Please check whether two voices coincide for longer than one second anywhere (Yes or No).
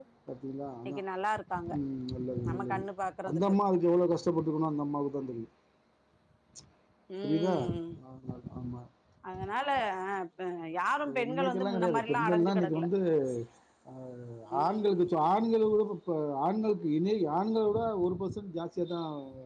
Yes